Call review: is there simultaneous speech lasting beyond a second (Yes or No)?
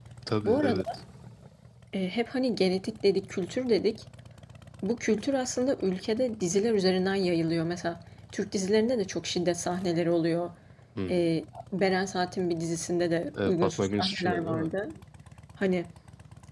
Yes